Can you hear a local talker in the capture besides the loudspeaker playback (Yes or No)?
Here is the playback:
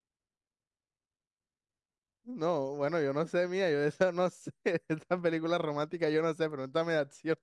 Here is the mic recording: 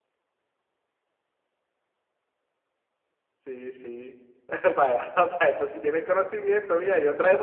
Yes